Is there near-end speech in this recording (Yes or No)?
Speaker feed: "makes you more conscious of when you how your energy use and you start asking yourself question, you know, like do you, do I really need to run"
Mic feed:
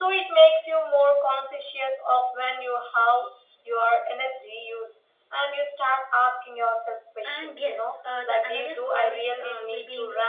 Yes